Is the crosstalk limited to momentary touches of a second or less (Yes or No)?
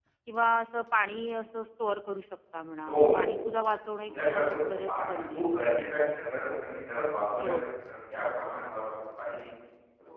No